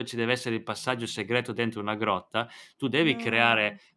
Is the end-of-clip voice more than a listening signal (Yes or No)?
No